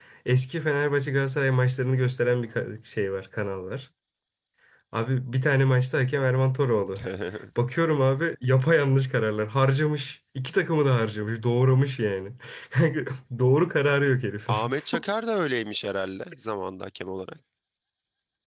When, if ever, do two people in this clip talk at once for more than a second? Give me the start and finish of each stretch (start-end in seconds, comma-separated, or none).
none